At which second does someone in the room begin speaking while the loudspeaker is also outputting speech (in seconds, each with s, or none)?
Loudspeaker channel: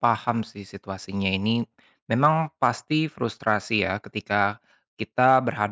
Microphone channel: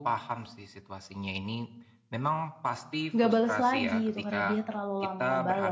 3.1 s